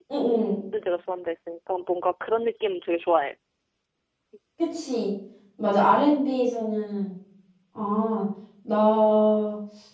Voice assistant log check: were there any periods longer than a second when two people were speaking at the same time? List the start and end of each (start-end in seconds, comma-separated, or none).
none